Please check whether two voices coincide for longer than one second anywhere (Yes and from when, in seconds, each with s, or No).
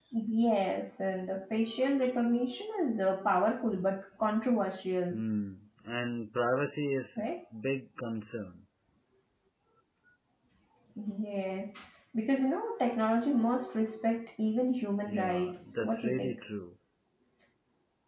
Yes, from 15.1 s